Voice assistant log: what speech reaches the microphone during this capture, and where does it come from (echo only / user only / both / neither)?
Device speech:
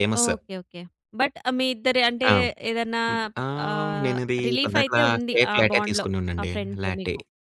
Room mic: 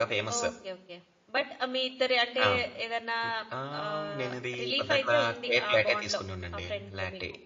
echo only